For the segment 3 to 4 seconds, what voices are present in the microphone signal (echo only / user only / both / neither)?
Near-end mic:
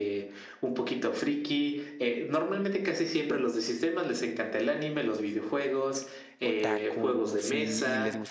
echo only